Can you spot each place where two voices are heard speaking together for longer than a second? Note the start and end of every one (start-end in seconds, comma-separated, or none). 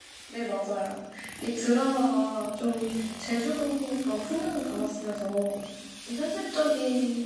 none